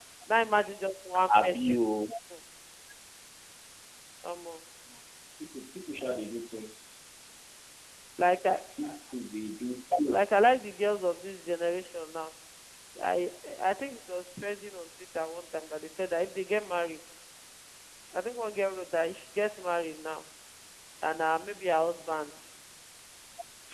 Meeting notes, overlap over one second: none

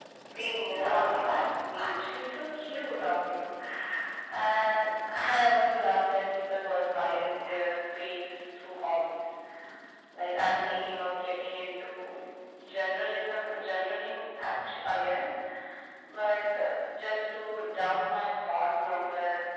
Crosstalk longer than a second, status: present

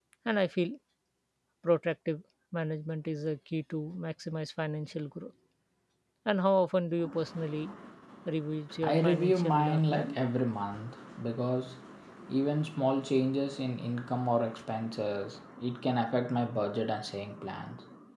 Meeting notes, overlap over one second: present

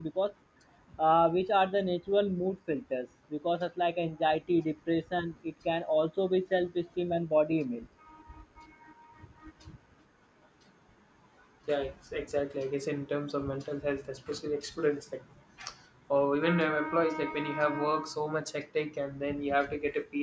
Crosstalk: none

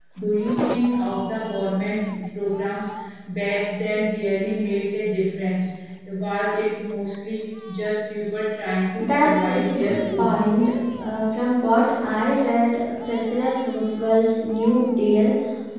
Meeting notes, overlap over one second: present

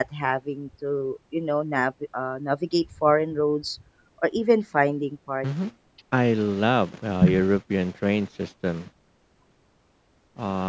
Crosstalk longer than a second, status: none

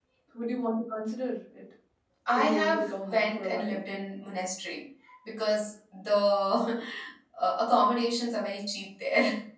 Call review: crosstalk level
present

